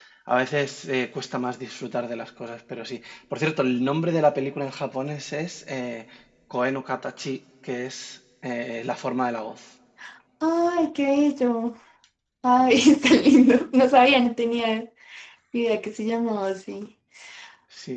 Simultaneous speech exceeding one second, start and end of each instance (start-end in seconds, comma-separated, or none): none